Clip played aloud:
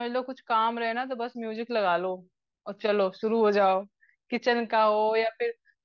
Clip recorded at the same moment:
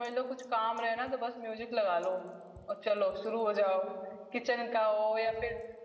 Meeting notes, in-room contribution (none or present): none